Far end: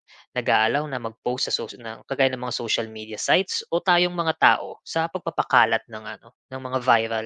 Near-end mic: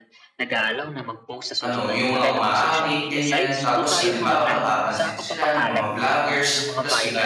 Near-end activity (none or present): present